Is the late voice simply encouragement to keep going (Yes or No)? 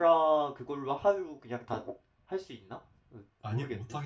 No